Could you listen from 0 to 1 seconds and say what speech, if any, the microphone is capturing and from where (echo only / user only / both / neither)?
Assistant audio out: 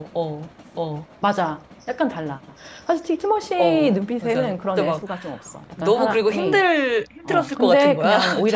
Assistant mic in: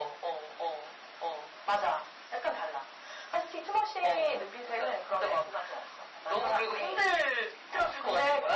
echo only